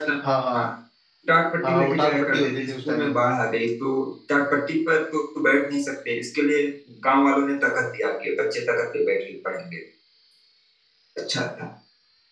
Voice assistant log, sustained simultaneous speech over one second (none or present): present